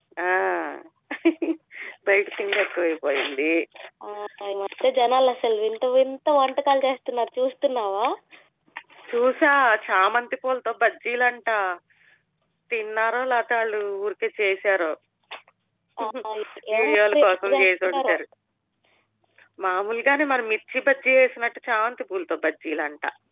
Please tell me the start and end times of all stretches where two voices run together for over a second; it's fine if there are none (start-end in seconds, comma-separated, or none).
16.8-18.1